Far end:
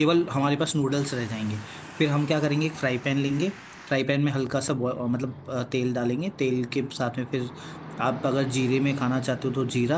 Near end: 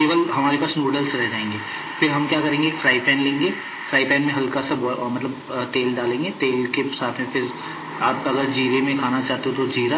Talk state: echo only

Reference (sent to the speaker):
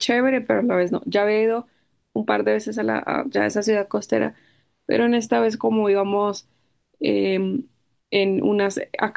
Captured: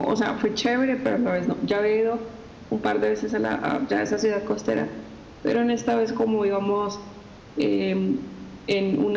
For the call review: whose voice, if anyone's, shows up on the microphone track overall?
echo only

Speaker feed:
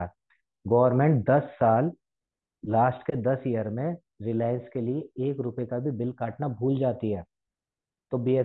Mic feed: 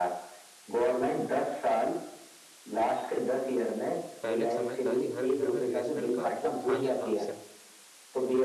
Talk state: both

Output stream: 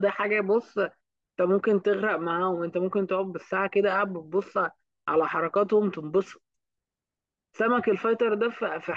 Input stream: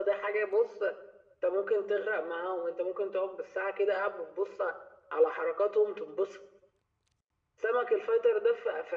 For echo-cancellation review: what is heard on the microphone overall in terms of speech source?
echo only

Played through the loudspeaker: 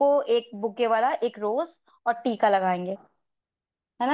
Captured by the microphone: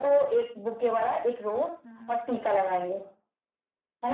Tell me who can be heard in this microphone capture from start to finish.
both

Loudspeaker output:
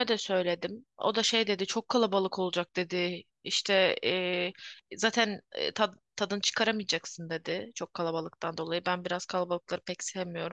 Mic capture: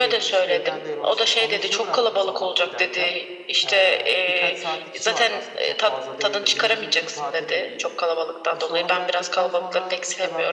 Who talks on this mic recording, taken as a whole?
both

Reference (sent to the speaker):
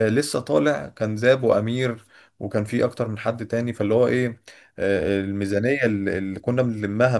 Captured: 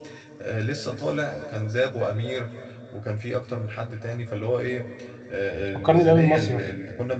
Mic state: both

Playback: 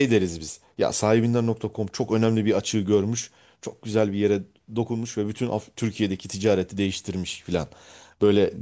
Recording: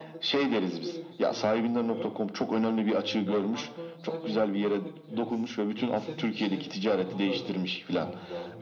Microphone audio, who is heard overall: both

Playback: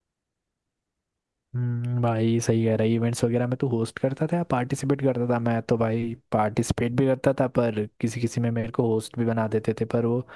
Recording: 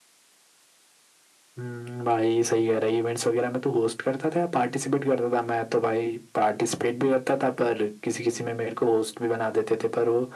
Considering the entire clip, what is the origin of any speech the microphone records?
echo only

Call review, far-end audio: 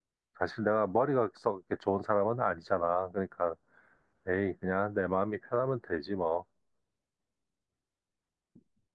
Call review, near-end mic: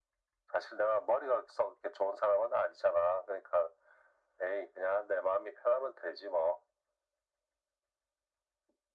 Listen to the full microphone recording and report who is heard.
echo only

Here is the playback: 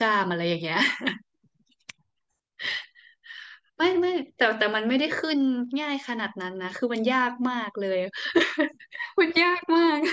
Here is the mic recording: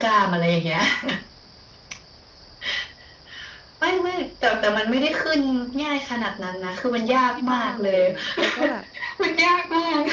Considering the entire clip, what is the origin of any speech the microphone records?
both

